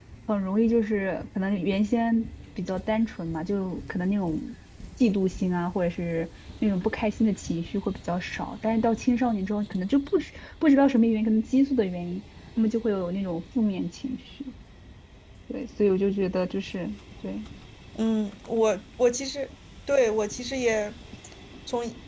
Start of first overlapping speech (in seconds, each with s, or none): none